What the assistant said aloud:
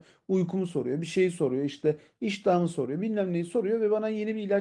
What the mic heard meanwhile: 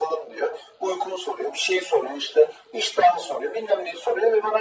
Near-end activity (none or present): none